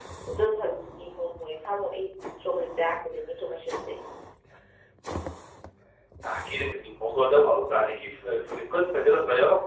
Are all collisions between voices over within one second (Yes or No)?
Yes